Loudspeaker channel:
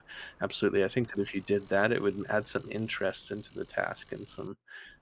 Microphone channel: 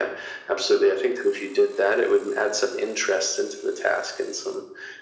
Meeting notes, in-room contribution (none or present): none